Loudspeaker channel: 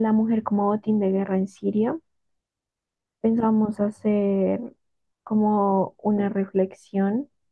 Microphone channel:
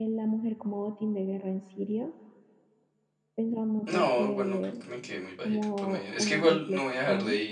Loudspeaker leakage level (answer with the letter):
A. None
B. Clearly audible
B